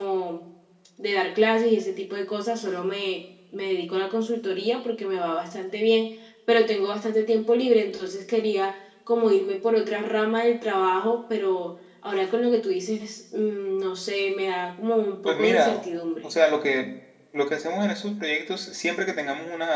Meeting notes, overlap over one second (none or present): none